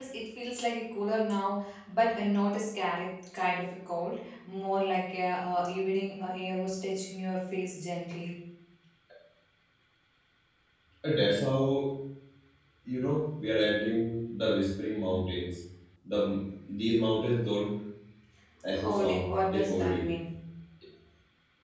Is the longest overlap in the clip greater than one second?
Yes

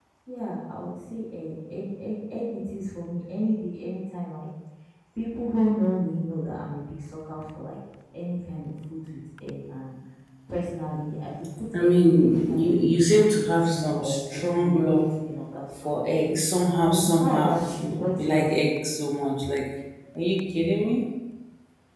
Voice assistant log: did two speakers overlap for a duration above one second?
Yes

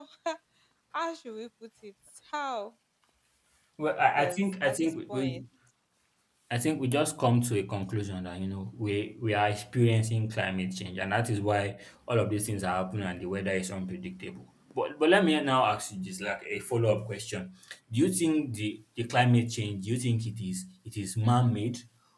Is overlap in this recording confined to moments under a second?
No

